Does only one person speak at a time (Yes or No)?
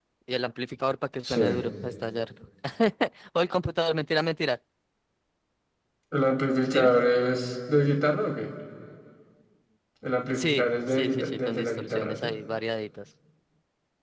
No